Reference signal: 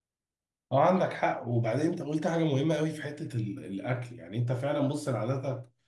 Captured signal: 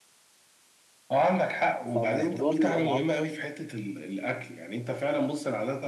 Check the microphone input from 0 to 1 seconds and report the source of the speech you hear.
neither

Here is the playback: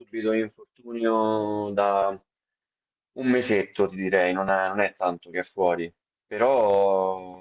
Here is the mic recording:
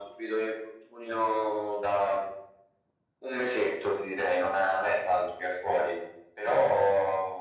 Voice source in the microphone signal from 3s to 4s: echo only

